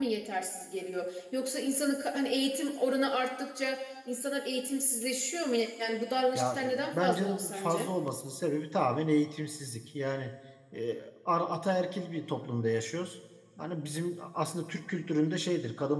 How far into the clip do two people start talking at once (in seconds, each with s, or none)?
6.4 s